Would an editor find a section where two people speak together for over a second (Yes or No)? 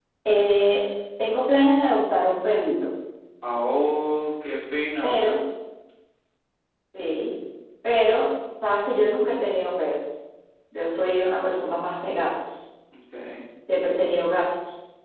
No